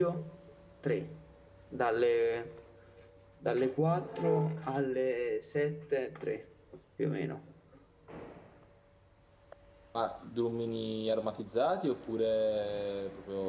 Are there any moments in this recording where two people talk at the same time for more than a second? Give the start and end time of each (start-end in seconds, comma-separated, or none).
none